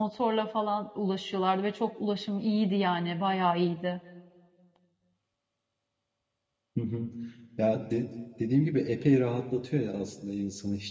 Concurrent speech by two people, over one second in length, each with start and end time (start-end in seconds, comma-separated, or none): none